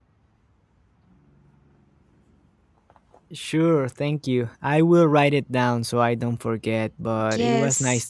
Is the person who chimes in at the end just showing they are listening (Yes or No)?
No